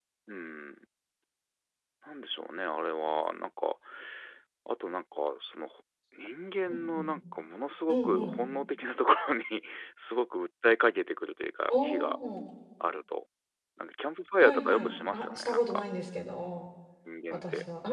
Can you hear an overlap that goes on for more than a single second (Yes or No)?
Yes